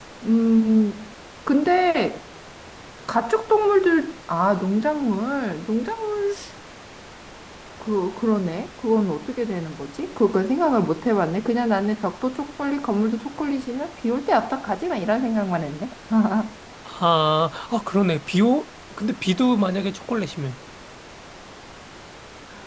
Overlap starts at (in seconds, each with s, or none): none